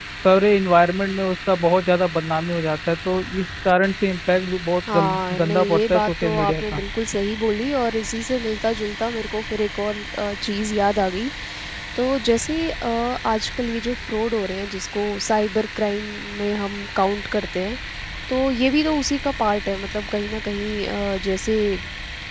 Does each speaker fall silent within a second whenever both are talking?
No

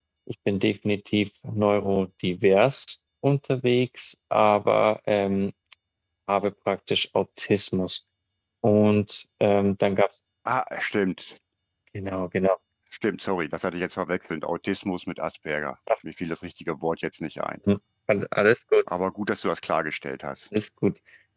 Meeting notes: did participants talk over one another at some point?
No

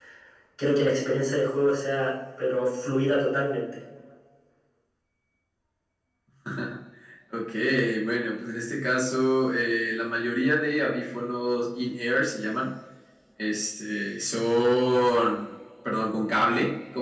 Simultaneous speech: No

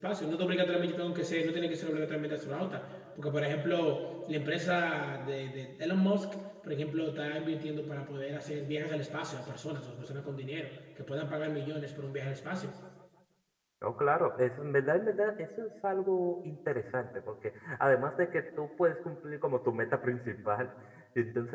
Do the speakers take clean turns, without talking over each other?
Yes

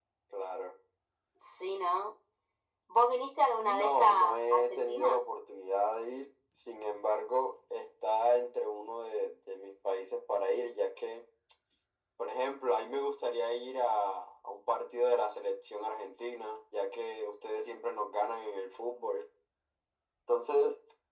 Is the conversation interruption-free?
No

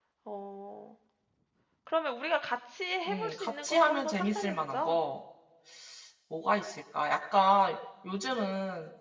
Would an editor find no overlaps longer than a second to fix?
No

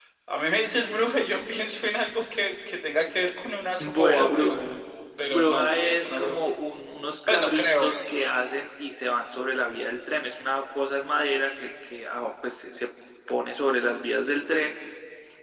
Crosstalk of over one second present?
Yes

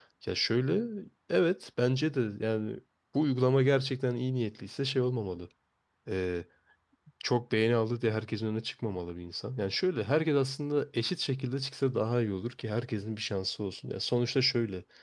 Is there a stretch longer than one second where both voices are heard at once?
No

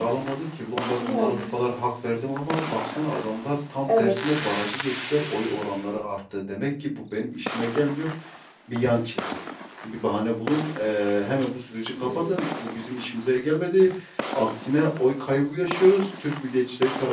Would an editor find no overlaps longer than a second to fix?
Yes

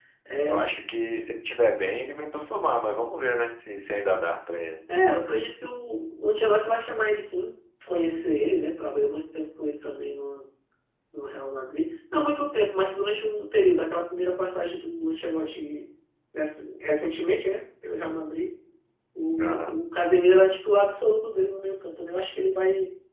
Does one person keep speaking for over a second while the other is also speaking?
No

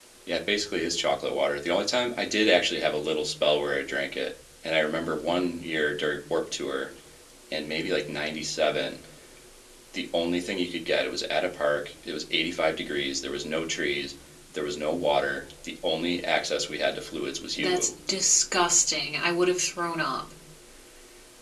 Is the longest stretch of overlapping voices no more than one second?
Yes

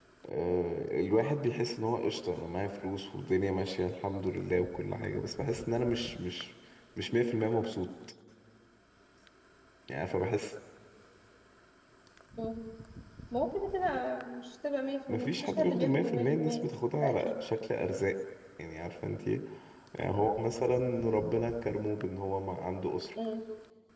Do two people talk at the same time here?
Yes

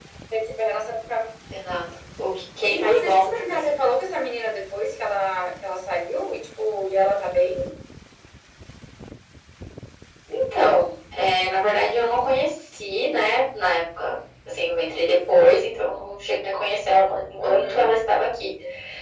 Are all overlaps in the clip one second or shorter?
No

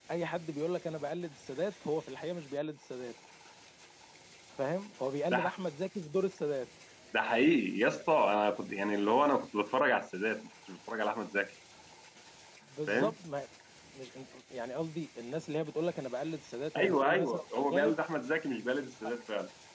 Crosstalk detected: Yes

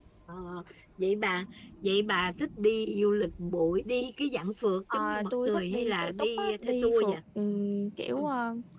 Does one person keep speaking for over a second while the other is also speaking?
Yes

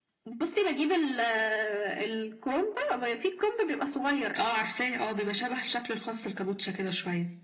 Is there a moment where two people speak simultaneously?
No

